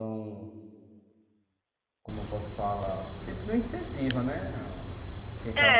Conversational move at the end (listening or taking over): taking over